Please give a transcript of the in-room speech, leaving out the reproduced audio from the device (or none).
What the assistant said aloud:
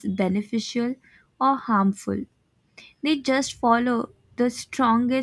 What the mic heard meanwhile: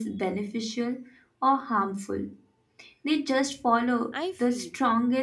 I feel